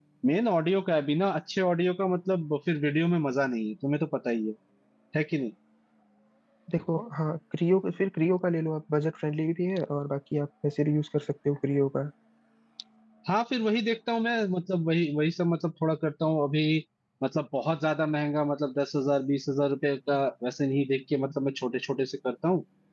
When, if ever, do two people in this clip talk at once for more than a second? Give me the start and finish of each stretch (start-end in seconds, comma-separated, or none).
none